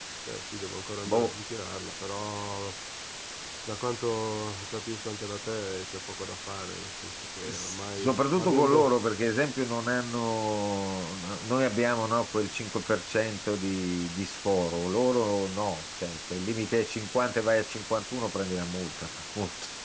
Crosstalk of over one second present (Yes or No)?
Yes